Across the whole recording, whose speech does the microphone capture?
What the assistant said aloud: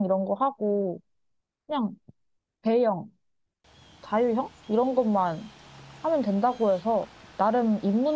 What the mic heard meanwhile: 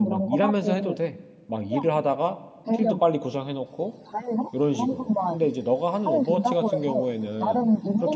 both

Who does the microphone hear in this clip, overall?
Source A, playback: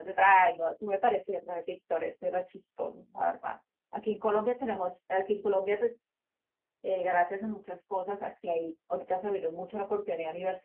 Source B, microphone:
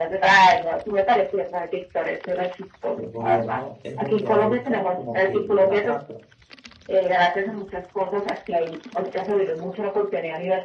both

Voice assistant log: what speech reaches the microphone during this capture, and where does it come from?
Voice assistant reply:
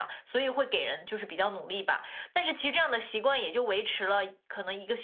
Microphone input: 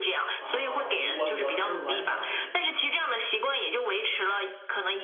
both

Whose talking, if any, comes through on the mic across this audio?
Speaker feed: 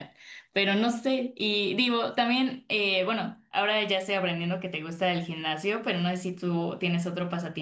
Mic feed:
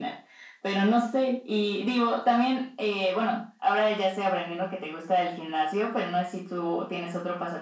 echo only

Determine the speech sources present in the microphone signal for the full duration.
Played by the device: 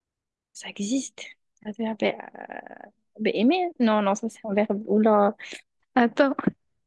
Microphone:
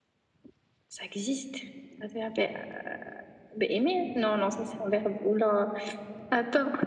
echo only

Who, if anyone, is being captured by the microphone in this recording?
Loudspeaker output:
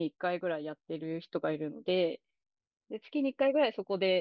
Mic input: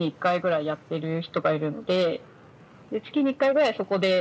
echo only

